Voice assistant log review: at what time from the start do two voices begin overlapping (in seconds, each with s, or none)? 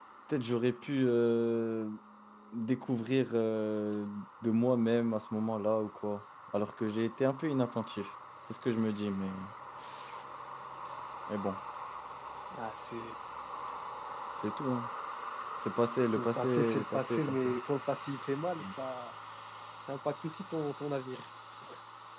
16.2 s